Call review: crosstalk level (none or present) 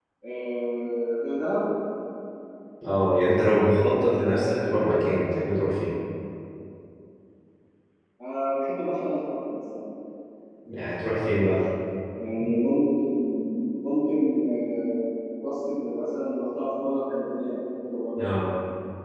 none